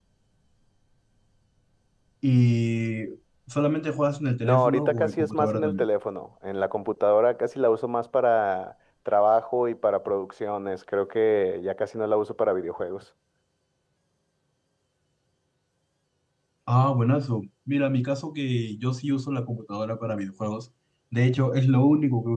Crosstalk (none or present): present